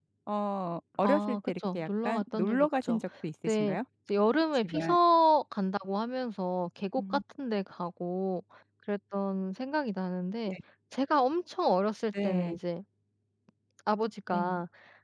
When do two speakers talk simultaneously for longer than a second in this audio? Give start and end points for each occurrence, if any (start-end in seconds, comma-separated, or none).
1.0-3.0